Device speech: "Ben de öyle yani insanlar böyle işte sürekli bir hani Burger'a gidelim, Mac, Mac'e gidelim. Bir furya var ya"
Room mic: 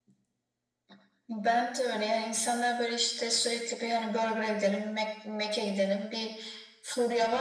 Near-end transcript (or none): none